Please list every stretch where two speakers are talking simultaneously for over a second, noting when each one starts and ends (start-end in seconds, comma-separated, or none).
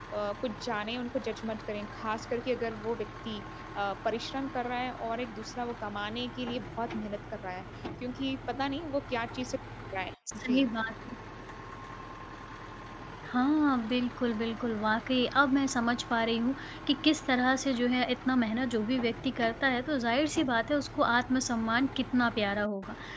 none